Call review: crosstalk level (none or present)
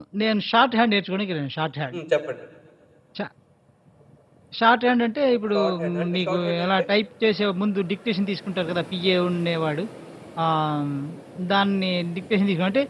present